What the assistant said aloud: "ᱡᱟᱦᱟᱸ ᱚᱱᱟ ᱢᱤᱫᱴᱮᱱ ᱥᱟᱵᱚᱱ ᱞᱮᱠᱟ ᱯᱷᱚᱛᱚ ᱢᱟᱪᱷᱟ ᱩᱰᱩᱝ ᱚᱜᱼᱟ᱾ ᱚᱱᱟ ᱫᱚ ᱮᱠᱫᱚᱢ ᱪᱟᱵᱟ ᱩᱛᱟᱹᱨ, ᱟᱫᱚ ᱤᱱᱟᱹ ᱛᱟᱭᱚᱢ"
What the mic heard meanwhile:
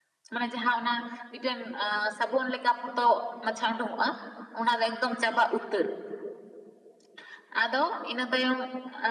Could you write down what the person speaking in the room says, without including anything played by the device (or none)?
none